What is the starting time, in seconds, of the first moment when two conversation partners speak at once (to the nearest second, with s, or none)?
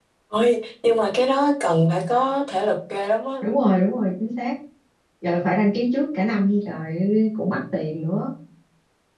none